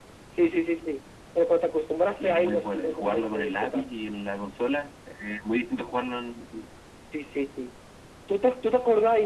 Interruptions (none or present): present